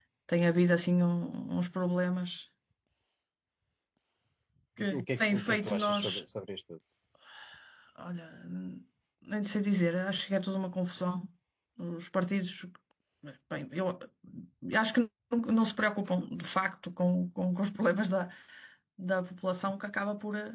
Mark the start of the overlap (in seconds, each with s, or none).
5.0 s